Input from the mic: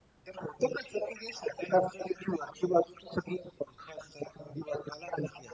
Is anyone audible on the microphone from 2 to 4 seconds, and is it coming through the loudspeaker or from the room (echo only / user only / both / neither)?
echo only